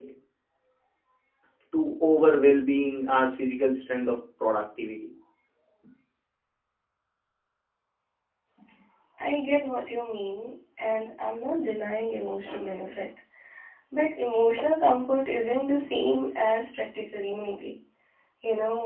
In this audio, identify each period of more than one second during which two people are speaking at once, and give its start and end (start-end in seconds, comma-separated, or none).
none